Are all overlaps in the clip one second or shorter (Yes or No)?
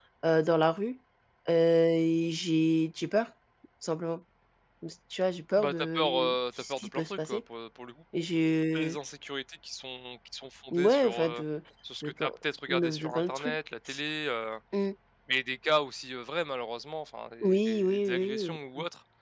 No